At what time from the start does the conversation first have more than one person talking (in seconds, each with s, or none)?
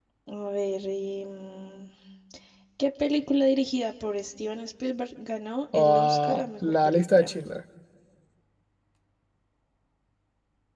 5.7 s